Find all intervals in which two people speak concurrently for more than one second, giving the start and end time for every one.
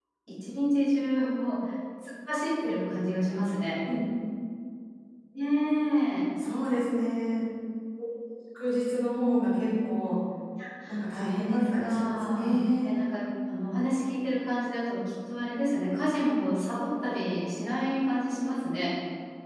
11.1-12.6

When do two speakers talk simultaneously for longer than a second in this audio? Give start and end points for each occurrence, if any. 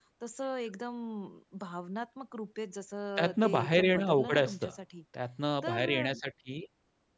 3.2-4.7

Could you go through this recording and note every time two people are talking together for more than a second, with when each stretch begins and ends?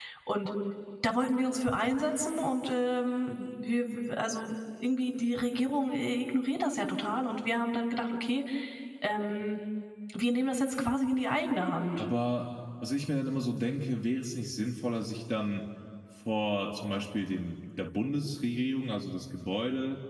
none

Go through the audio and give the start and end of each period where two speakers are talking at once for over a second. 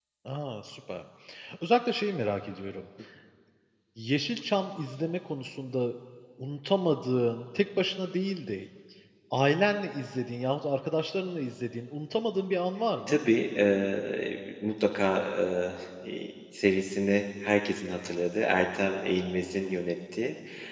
none

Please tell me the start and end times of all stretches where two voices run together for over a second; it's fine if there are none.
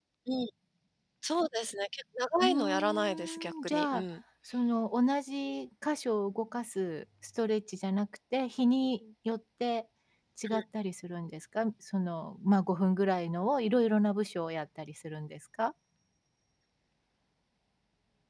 2.4-4.0

